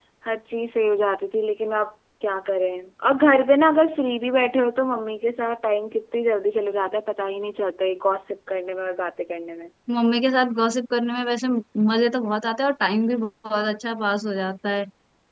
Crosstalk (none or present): none